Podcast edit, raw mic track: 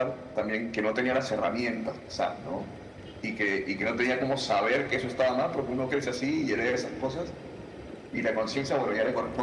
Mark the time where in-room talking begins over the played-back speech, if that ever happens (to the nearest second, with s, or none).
none